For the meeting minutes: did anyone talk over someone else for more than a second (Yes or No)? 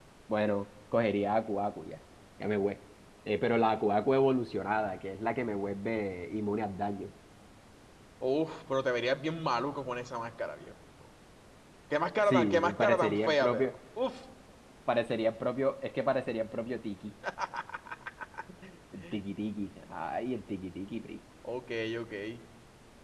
Yes